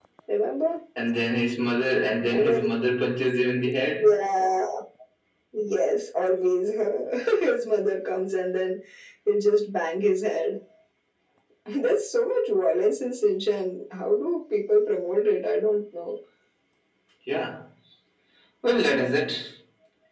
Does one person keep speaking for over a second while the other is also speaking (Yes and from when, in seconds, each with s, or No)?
No